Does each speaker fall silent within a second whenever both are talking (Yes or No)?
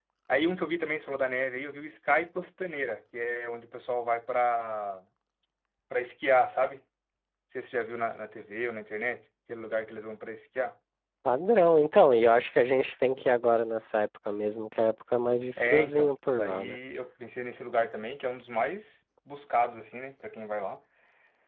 No